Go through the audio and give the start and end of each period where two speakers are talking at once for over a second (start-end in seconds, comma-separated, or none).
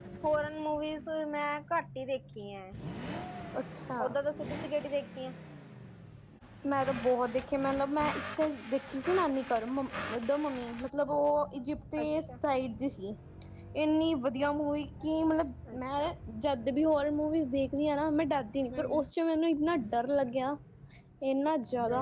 none